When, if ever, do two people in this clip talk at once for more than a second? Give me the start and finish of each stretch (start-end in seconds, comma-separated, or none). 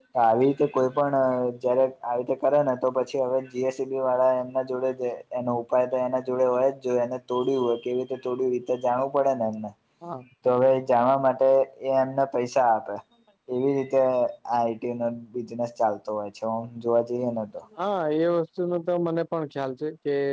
none